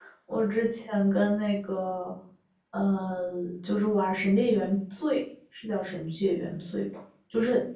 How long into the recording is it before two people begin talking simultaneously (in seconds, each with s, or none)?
none